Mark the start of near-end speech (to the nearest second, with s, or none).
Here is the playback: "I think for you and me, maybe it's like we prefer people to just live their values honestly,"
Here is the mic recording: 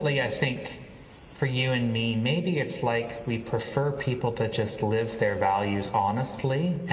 none